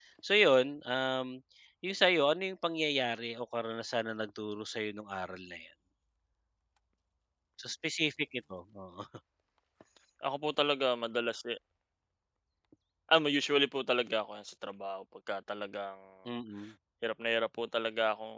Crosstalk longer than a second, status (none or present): none